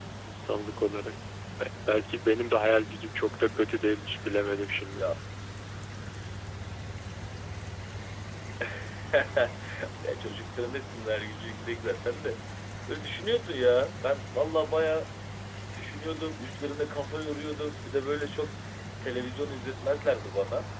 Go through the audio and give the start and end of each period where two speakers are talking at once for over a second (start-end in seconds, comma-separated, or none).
none